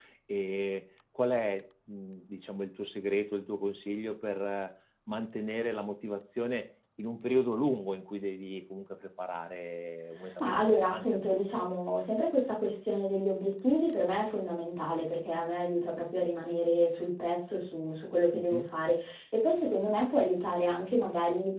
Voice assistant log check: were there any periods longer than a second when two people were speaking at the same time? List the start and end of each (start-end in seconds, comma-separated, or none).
10.4-11.7